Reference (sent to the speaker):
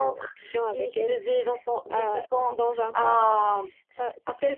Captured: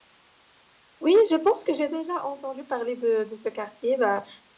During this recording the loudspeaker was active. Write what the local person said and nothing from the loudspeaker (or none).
Oui, je pense que j'ai déjà entendu parler de, de ce quartier. Bah,